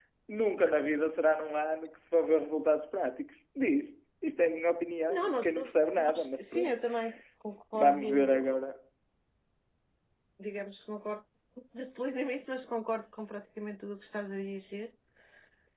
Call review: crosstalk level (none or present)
present